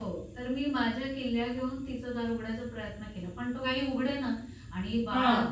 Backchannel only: Yes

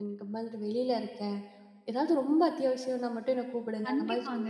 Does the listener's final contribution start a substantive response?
Yes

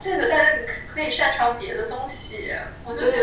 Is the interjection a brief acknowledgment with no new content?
No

